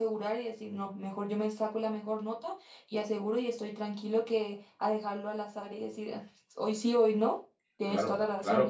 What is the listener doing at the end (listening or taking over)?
taking over